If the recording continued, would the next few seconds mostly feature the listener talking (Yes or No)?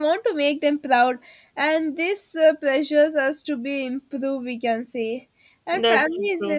No